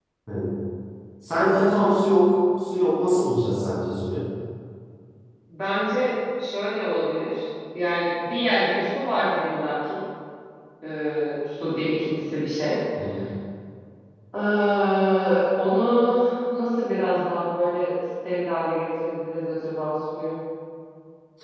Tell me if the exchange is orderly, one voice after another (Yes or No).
Yes